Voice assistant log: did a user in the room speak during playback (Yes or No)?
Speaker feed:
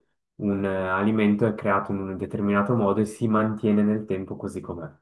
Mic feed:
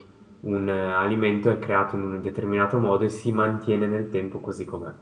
No